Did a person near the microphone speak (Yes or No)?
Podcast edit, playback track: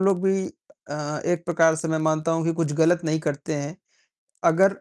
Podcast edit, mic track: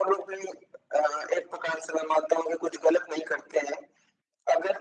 No